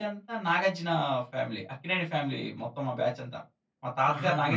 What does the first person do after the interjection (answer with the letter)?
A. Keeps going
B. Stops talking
B